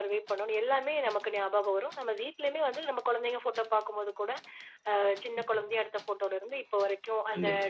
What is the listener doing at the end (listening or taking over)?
listening